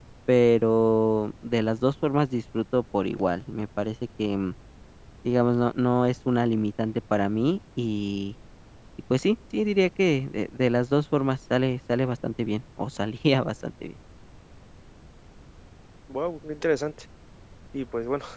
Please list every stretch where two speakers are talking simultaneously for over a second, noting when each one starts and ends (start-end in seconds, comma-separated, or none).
none